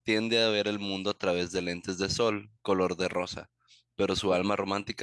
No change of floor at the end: Yes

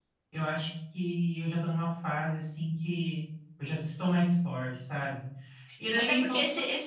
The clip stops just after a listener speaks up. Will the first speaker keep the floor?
No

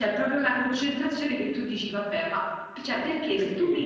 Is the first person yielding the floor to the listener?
No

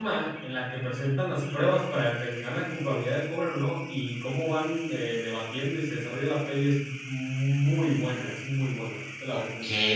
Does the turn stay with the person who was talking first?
No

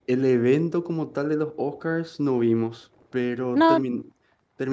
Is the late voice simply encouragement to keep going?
Yes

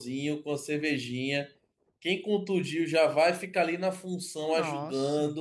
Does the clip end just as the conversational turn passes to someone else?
No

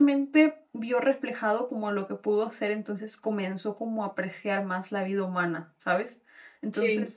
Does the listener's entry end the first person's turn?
No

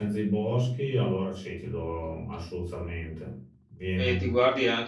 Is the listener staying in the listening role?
No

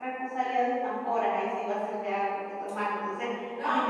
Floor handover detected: Yes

